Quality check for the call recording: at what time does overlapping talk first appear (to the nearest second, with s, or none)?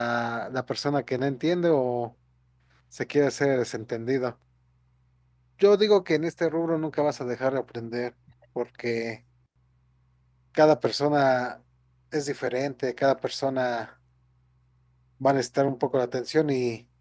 none